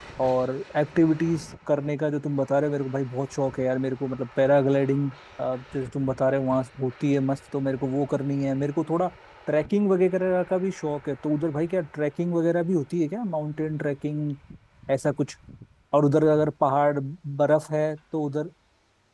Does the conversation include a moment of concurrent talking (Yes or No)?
No